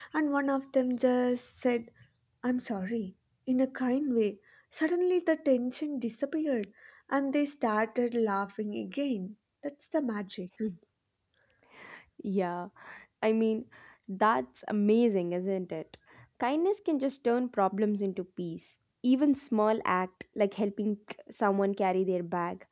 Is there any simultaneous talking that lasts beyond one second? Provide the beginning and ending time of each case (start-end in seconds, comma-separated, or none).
none